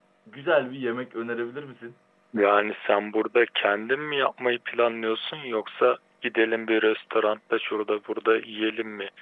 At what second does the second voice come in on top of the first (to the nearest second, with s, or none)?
none